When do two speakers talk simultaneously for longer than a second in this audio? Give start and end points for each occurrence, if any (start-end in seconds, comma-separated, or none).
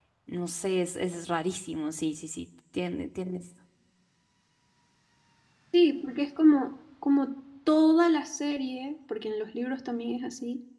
none